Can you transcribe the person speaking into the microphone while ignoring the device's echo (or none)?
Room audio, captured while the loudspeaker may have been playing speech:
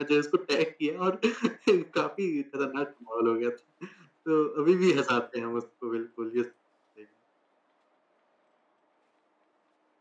none